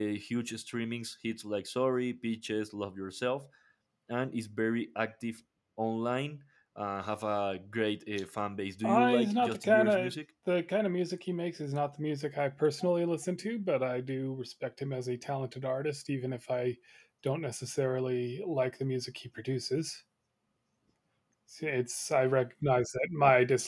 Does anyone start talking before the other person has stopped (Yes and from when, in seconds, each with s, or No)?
Yes, from 8.8 s